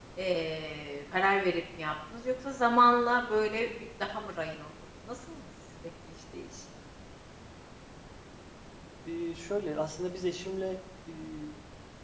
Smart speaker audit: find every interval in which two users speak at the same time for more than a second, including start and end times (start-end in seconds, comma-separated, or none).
none